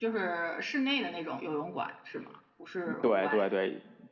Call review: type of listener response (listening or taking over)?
taking over